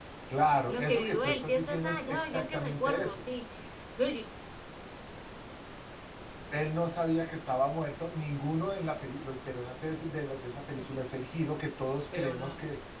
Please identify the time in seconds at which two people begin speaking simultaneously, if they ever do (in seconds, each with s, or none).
0.7 s